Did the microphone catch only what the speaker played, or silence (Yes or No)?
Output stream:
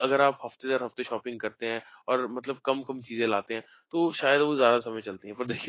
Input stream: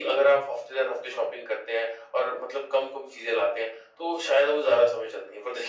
Yes